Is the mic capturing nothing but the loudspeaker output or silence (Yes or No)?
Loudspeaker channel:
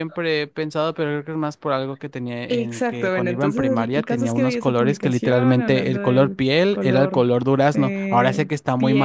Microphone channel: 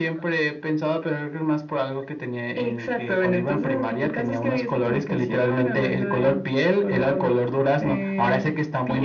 Yes